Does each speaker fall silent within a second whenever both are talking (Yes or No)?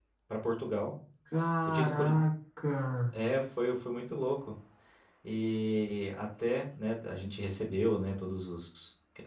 Yes